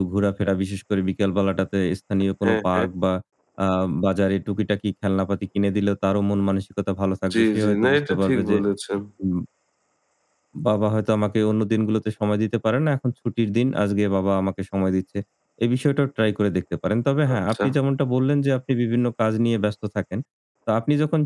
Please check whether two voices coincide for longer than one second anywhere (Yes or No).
Yes